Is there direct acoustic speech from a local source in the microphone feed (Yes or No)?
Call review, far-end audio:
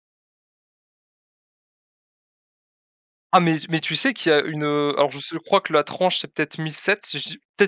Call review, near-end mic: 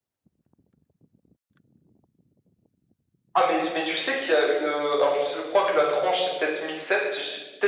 No